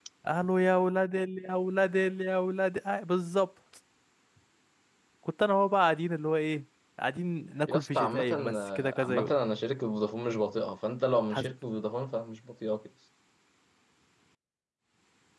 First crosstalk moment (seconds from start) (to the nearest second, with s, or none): 8 s